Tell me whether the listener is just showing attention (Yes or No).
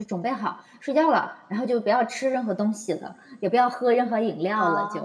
No